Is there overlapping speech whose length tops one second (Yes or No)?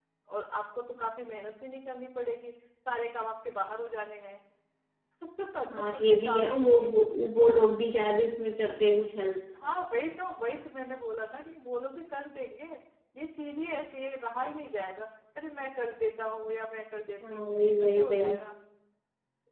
Yes